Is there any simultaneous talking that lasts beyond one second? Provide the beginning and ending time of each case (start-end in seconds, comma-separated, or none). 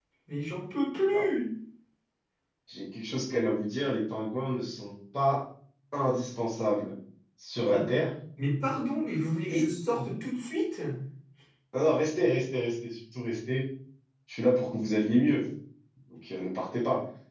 none